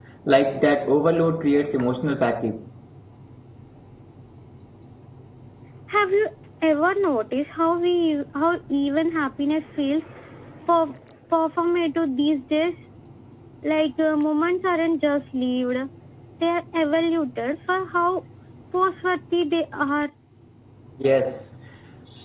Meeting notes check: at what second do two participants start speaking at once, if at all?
none

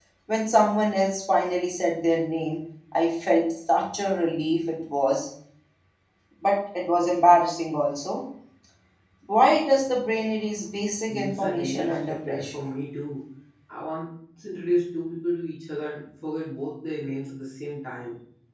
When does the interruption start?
11.0 s

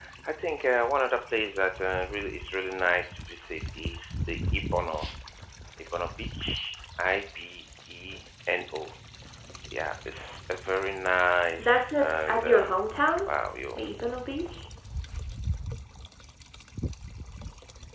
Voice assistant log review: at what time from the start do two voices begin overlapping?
11.6 s

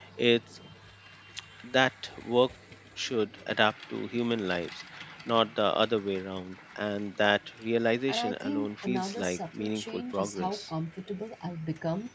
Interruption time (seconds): 8.1 s

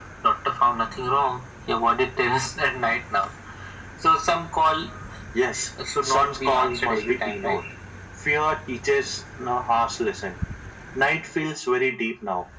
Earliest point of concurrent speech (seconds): 5.8 s

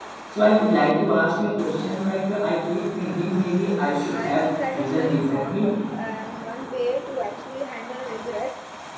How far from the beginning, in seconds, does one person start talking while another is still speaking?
4.1 s

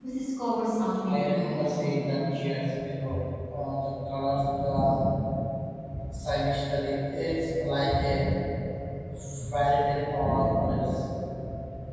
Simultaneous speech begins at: 1.1 s

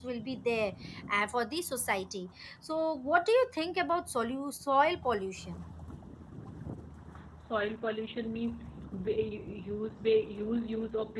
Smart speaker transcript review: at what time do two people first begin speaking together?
none

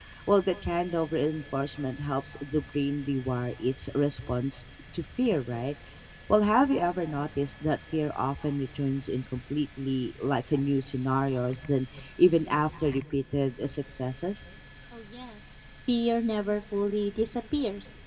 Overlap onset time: none

